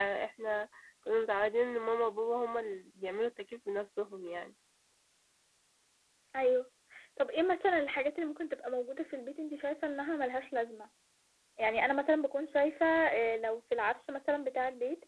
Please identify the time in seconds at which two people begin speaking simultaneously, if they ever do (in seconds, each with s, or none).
none